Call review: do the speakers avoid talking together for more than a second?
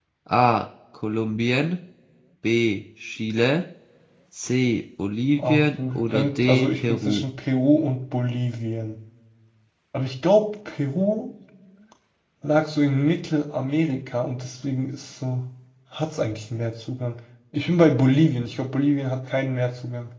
No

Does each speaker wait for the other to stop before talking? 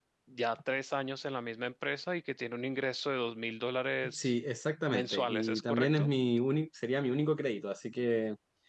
No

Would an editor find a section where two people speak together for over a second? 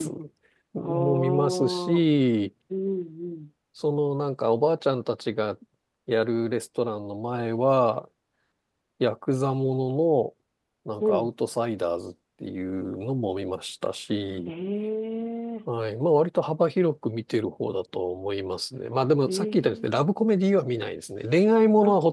Yes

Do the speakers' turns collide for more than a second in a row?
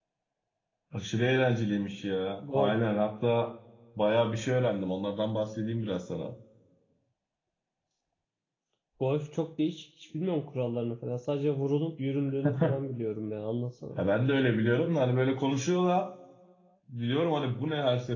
No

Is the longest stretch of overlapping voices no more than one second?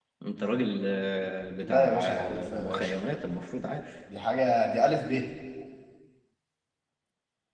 No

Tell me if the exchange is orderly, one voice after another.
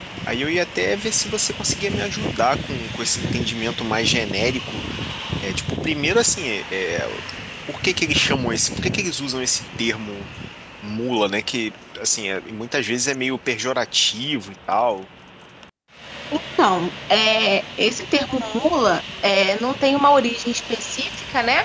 Yes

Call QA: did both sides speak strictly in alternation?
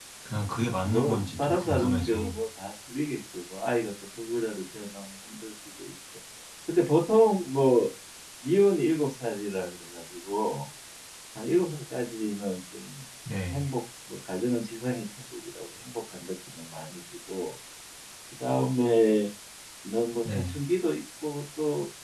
No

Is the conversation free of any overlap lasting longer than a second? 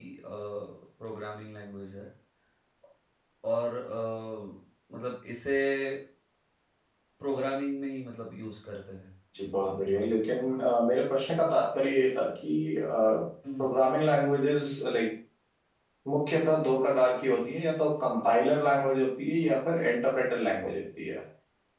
Yes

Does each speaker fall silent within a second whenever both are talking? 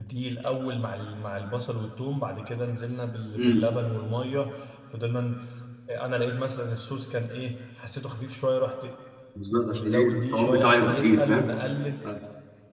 No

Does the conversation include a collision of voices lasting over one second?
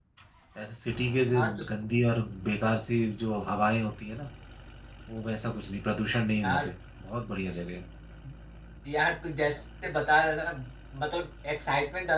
No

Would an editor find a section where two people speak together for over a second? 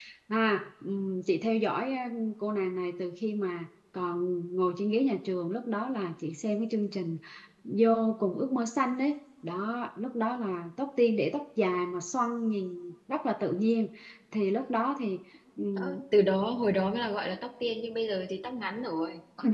No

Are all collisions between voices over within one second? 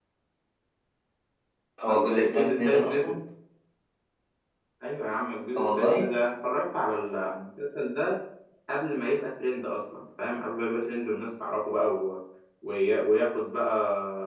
No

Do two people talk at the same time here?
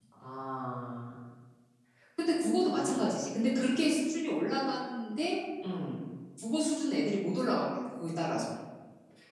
No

